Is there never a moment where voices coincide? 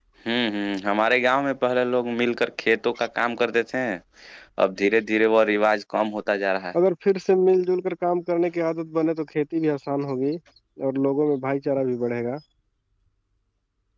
Yes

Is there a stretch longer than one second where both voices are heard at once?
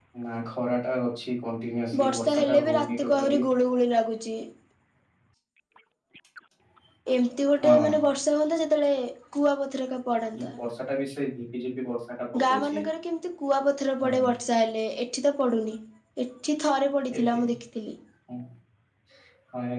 Yes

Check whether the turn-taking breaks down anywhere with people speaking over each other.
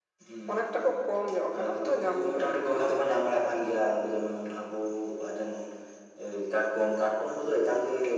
Yes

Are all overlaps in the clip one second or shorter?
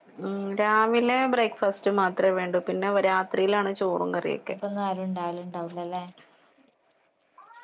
Yes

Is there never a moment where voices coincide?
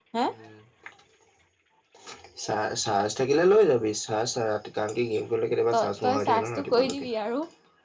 No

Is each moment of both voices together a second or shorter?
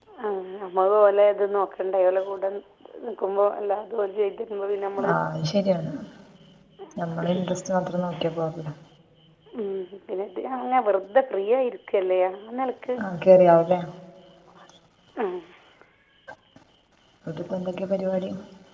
Yes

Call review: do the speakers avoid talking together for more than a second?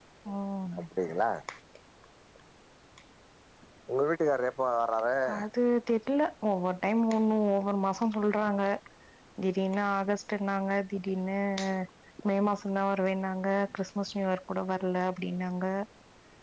Yes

